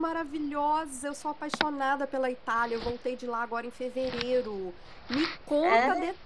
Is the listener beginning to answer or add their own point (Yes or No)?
No